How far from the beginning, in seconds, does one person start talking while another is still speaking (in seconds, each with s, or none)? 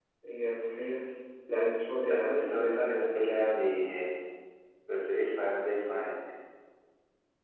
2.1 s